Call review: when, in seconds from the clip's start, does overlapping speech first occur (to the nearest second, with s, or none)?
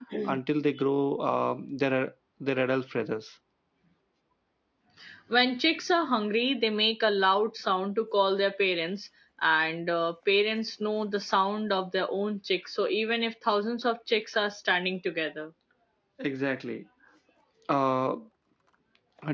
none